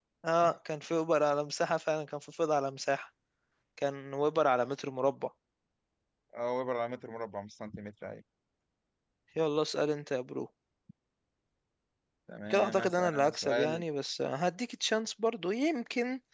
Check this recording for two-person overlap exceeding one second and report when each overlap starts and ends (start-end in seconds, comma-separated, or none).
12.5-13.8